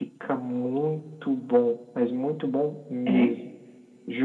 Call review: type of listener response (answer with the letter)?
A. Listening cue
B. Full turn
A